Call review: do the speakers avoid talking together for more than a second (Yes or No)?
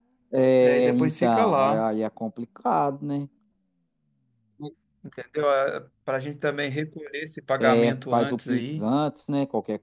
No